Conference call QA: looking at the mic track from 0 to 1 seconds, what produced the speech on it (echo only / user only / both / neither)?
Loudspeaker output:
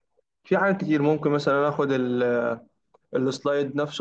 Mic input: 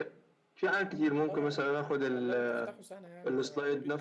echo only